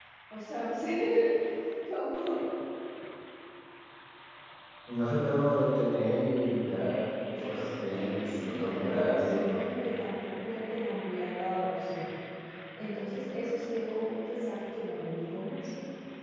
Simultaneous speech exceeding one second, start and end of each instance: 7.3-9.6

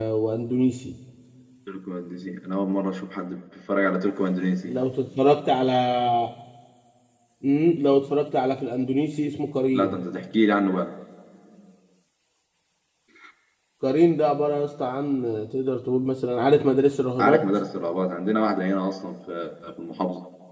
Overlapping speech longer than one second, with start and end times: none

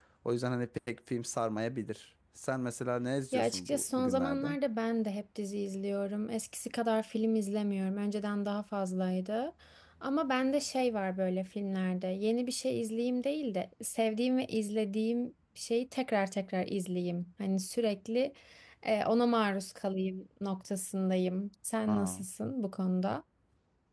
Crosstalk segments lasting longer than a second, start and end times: 3.3-4.6

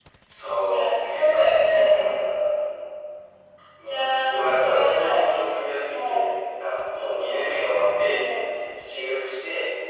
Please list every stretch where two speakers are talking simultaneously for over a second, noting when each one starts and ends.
0.7-2.0, 3.8-5.3

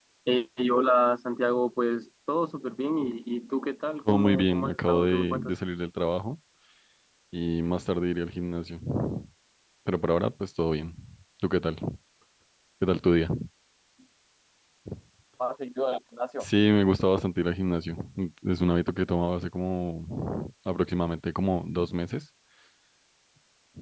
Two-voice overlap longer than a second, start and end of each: 4.1-5.5

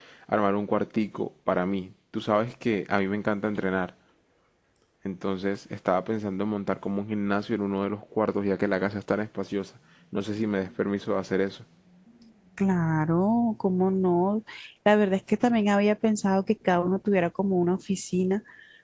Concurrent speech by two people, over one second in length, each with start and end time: none

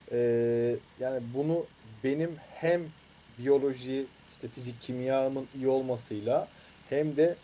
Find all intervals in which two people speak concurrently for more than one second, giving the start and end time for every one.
none

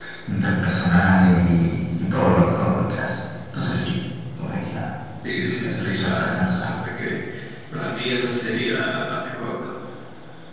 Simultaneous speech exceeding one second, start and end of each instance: 5.3-6.7

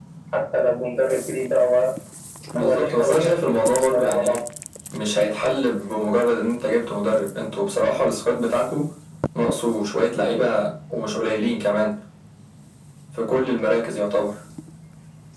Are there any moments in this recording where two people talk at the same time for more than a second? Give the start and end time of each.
2.6-4.4

